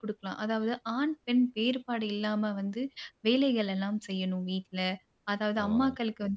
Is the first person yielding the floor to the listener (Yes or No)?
No